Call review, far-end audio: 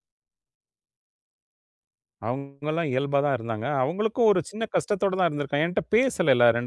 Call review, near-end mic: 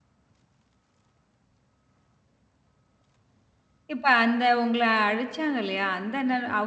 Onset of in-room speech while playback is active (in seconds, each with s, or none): 3.9 s